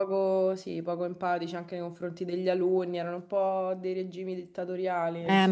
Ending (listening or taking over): taking over